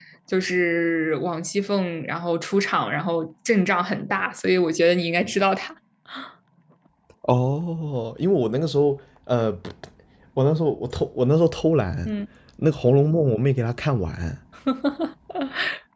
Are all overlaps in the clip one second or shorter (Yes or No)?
Yes